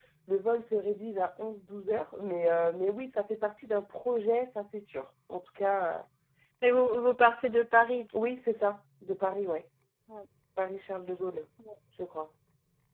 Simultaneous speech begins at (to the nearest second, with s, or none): none